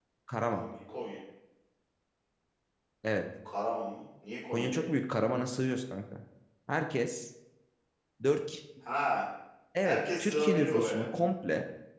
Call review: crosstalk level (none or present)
present